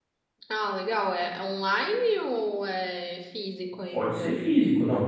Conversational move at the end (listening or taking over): taking over